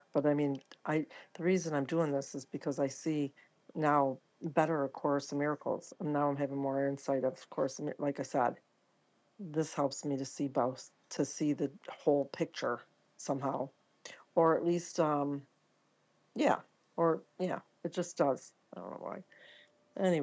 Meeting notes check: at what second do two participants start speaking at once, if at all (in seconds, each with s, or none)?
none